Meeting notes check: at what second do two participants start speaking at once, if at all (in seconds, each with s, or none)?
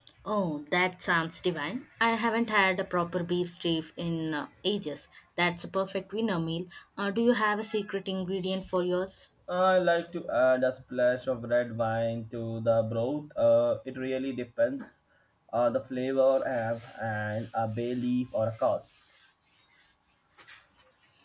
none